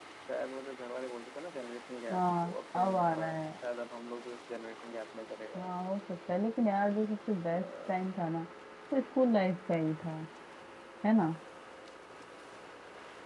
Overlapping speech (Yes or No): Yes